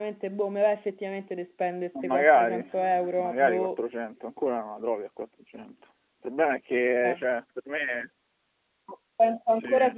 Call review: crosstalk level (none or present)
present